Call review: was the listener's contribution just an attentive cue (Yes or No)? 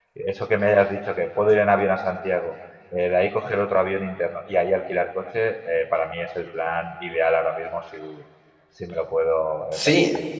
No